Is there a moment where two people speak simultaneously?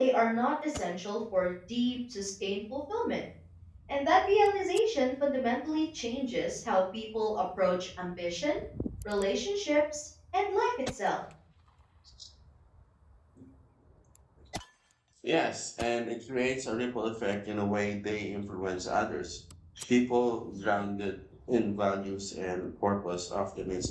No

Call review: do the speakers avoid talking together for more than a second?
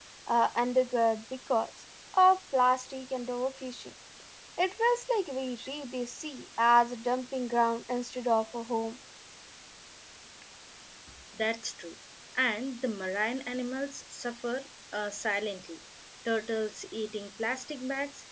Yes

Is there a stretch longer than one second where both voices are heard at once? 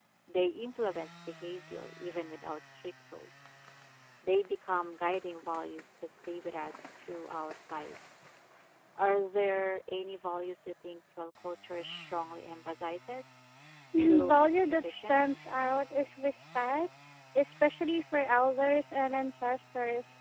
Yes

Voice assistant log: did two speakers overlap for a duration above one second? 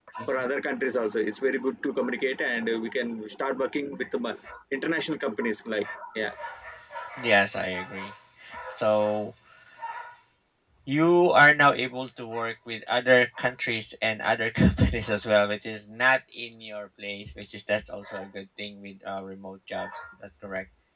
No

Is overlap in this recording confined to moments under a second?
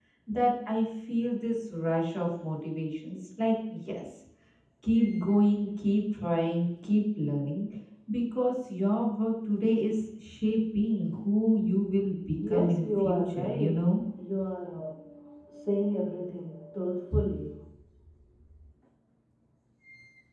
No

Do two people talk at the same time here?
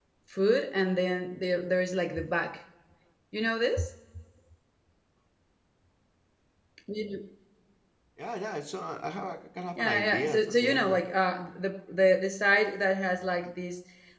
Yes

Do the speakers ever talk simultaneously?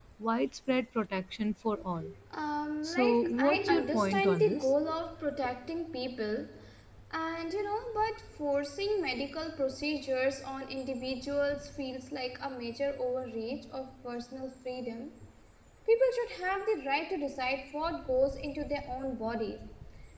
Yes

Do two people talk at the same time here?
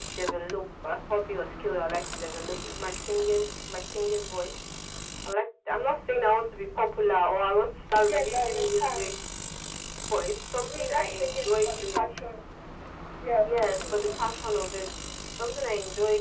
Yes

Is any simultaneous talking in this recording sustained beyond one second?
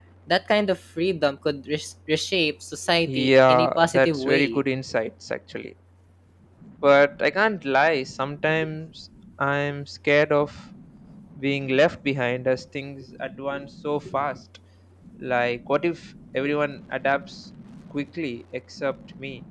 Yes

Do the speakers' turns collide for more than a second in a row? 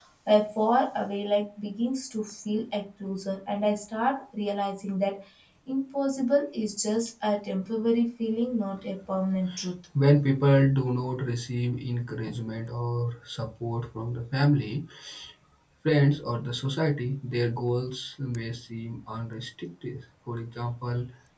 No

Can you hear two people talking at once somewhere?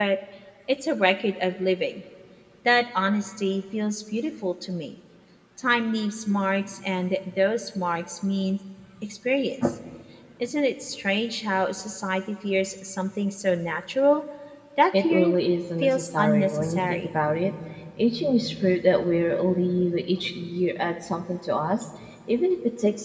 Yes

